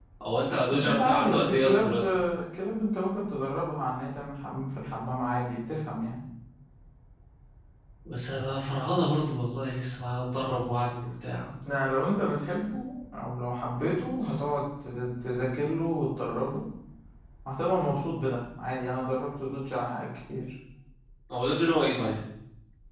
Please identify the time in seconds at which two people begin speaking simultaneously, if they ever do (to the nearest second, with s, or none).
1 s